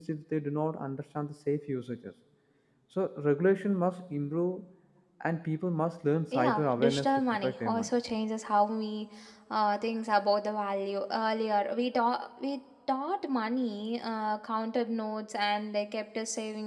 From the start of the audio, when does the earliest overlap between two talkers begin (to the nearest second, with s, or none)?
6 s